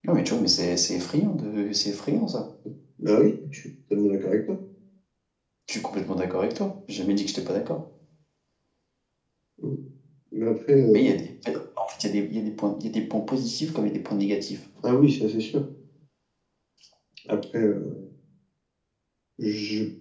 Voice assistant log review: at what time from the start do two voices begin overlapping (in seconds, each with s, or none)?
none